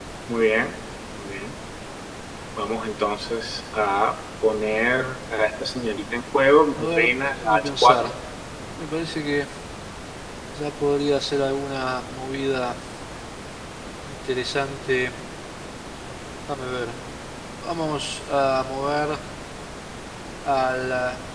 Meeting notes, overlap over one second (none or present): present